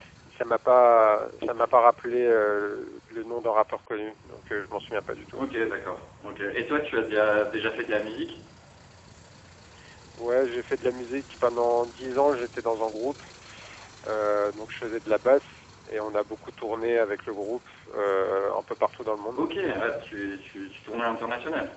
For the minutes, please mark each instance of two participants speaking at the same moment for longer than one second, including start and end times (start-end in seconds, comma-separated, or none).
none